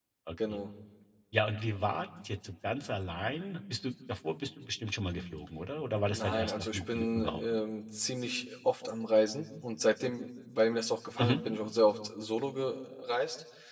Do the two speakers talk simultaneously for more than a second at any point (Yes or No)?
Yes